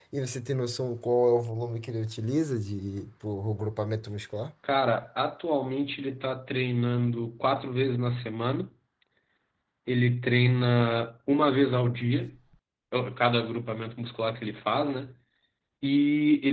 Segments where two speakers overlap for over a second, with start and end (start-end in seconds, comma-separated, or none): none